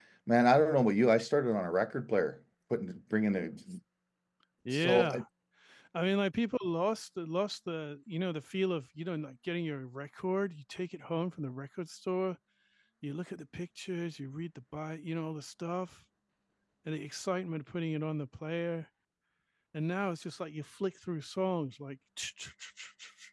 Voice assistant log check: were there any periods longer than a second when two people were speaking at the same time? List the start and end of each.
none

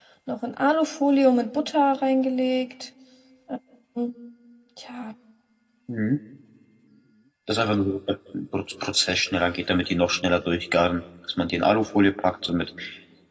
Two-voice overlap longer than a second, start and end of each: none

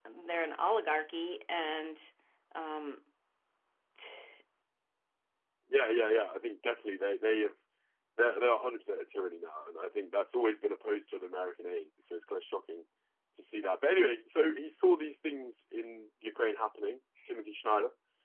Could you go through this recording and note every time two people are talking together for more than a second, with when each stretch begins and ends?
none

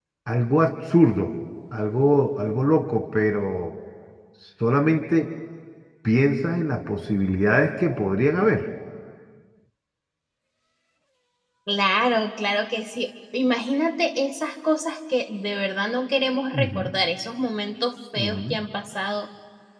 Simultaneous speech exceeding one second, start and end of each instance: none

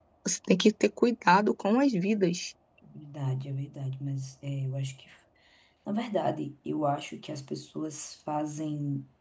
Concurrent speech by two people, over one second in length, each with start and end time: none

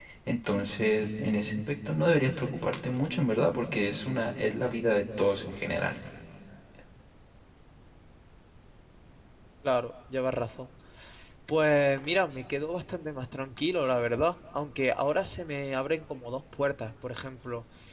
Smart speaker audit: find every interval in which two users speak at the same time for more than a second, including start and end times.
none

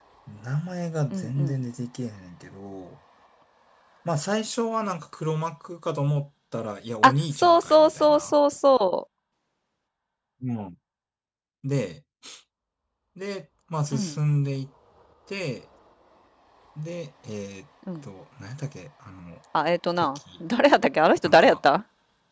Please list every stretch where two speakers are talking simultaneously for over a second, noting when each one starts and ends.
7.0-8.3

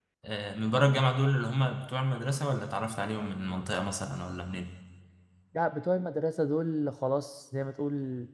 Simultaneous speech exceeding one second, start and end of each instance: none

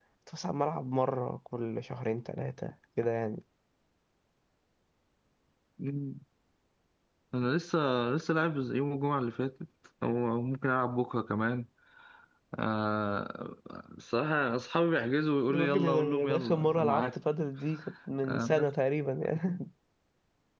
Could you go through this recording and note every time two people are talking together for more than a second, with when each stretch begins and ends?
15.5-17.0

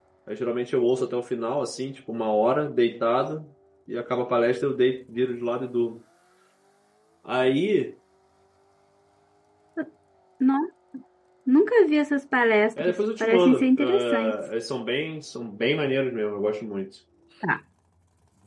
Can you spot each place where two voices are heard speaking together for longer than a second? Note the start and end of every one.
12.8-14.4

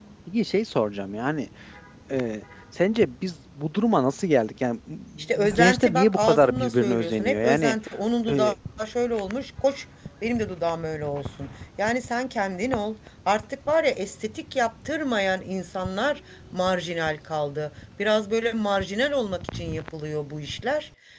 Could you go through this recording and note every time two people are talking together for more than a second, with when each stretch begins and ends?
5.4-7.8

